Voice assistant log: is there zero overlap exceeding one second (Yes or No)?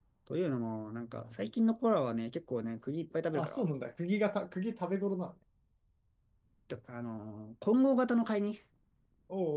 Yes